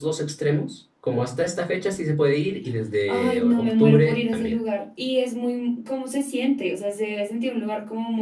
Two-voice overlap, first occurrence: 3.1 s

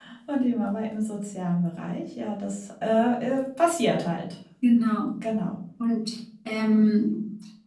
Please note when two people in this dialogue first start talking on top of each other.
none

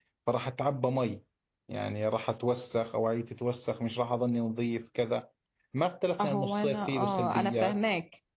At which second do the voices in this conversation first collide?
6.2 s

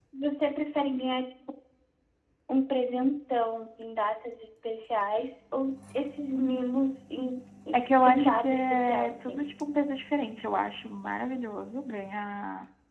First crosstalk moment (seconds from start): 7.7 s

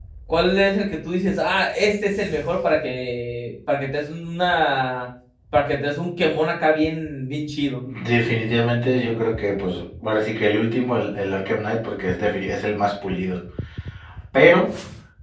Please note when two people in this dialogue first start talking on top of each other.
none

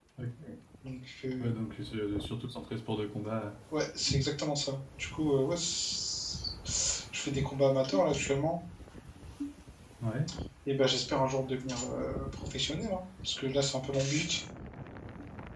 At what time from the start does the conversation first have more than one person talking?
none

